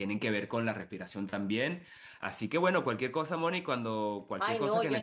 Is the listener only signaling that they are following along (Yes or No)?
No